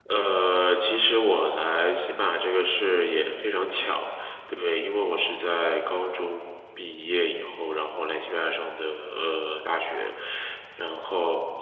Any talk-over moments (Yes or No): No